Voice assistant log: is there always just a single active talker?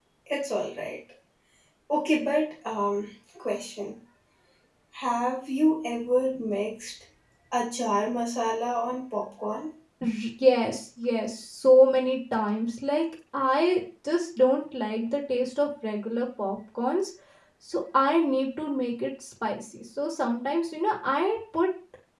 Yes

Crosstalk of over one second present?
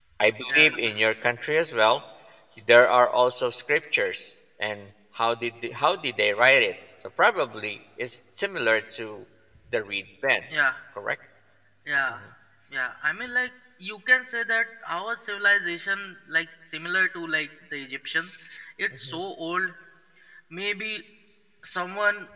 No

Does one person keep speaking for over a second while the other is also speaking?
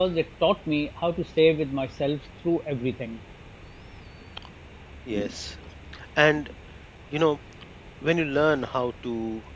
No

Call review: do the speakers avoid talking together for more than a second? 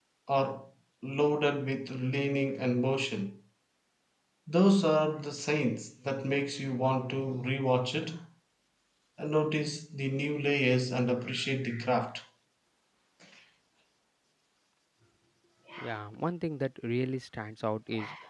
Yes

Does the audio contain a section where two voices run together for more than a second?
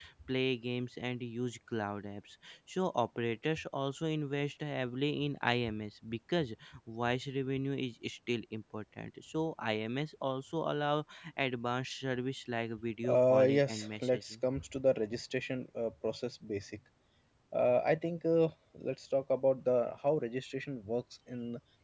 Yes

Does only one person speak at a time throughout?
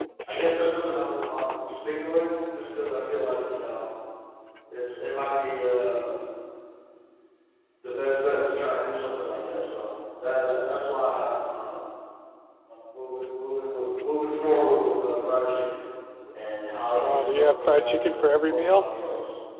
No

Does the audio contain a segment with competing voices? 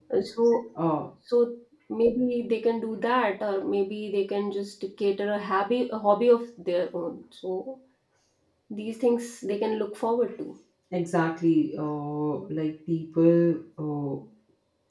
No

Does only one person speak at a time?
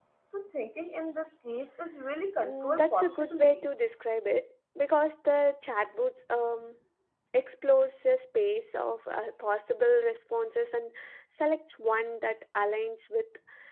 No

